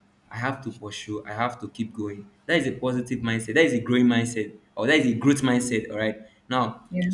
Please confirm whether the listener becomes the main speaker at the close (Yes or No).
No